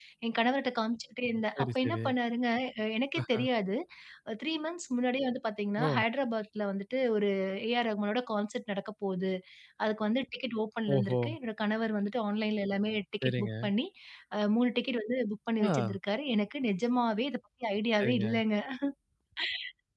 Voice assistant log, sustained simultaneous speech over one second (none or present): none